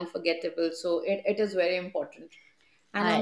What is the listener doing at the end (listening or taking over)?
listening